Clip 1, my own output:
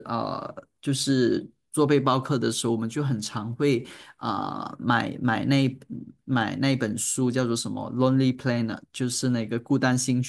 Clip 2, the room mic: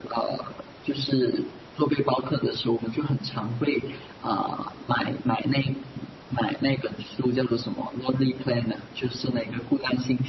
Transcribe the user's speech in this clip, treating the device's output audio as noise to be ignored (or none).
none